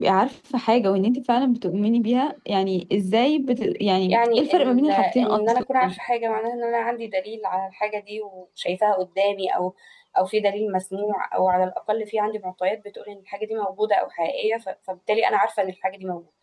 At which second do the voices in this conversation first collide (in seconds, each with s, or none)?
4.1 s